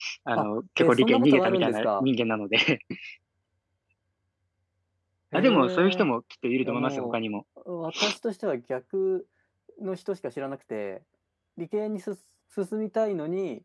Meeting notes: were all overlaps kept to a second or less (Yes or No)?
No